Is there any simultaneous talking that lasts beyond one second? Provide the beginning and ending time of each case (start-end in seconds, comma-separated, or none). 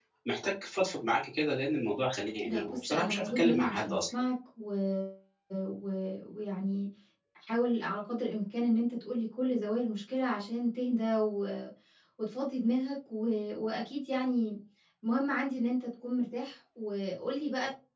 2.5-4.0